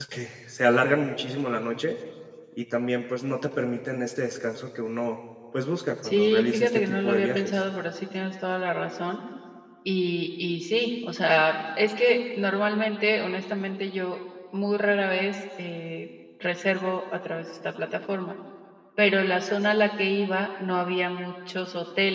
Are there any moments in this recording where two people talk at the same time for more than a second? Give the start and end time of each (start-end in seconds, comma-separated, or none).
6.0-7.6